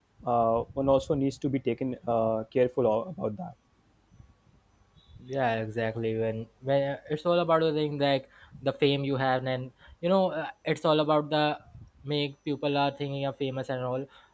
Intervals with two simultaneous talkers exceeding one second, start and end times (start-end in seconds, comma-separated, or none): none